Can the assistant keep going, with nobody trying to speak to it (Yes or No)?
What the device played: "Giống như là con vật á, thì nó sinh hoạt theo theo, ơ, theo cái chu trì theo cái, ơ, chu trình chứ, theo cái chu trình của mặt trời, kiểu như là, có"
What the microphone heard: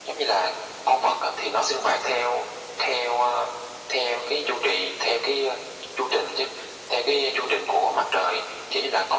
Yes